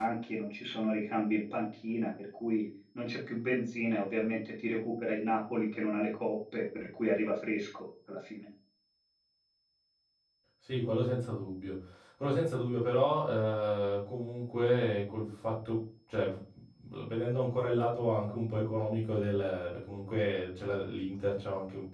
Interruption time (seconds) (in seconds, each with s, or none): none